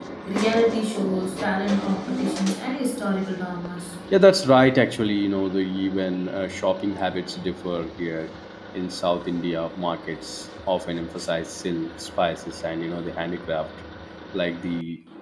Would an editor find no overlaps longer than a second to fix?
Yes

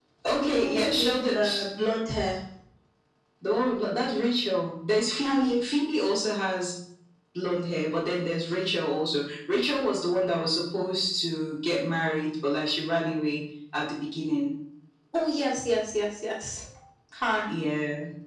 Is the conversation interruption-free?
No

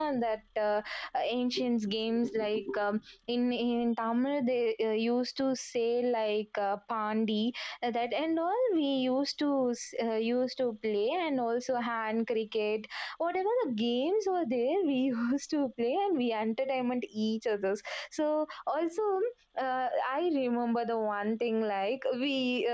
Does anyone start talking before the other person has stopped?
No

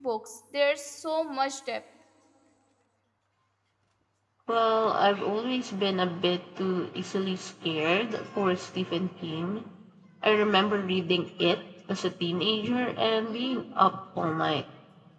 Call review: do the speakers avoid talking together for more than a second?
Yes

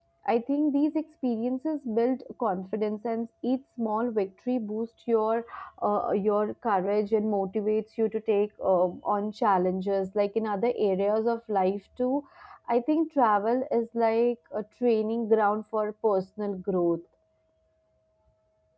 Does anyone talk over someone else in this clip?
No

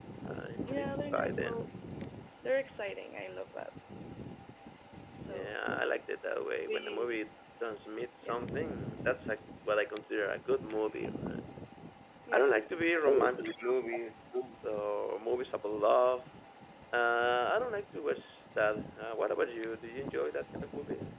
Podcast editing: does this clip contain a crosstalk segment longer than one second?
Yes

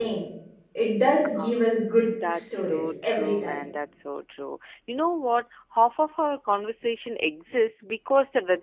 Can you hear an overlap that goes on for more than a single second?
Yes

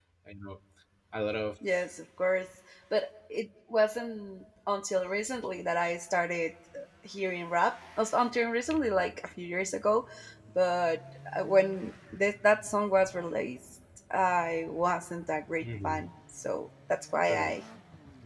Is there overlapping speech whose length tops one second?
No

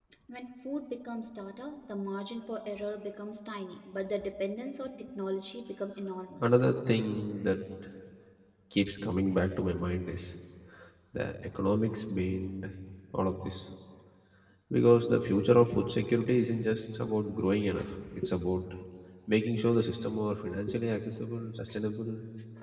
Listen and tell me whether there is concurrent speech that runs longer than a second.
No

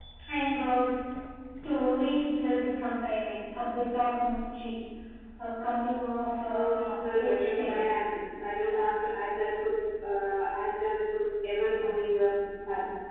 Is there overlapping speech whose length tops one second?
Yes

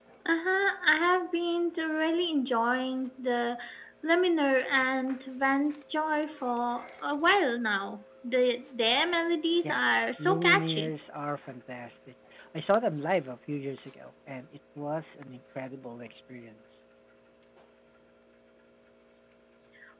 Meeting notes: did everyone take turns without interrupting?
No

